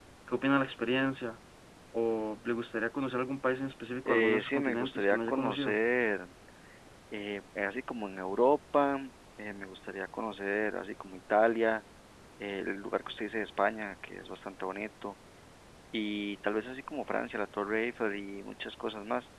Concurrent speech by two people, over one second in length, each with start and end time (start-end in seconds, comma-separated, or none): 4.0-5.8